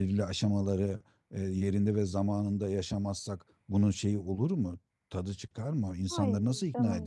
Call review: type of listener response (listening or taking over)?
taking over